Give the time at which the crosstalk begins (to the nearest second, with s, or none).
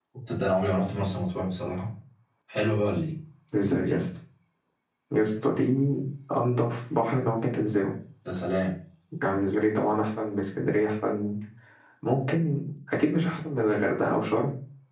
none